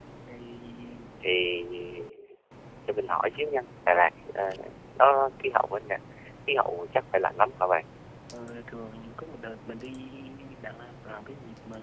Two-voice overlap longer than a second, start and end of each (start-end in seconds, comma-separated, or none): none